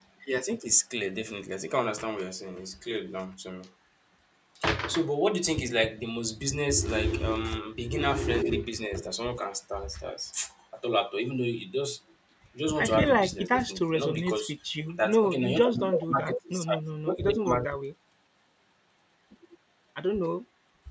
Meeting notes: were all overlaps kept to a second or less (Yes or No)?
No